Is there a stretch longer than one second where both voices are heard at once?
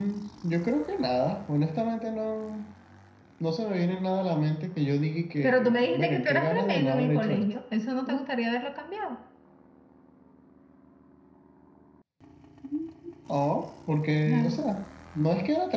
Yes, from 5.4 s

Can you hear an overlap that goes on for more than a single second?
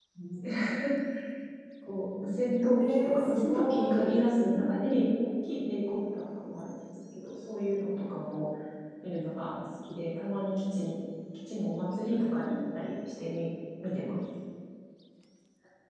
Yes, from 2.8 s

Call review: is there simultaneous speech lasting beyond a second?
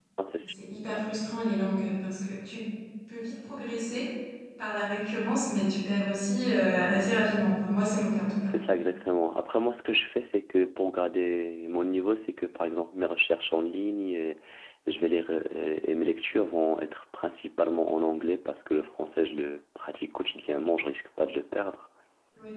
No

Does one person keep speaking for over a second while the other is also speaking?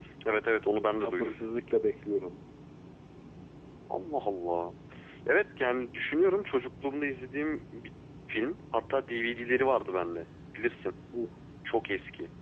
No

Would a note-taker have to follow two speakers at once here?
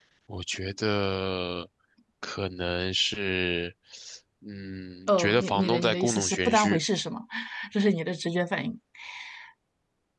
Yes, from 5.1 s

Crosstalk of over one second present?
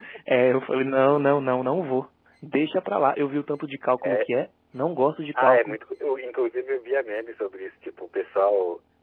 No

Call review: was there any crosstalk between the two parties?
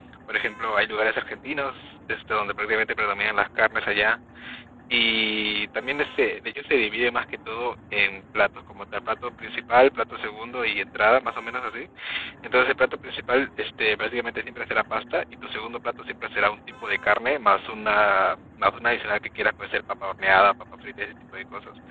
No

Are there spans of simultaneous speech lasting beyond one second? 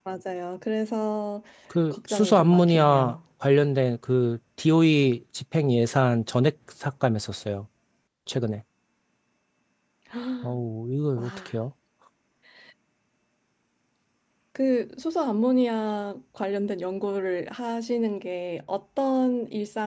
Yes, from 1.9 s

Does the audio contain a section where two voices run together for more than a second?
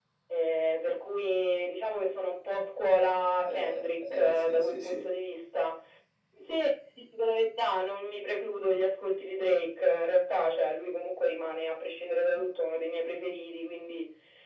Yes, from 3.4 s

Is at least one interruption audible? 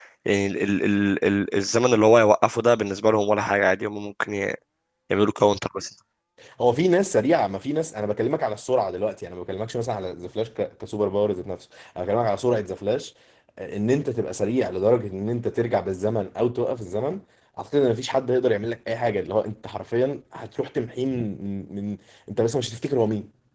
No

